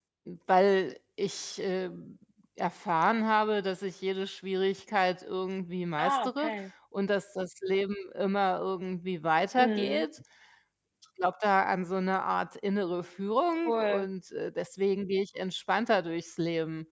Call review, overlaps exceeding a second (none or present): none